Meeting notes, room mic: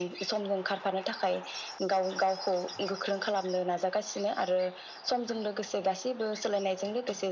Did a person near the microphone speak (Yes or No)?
No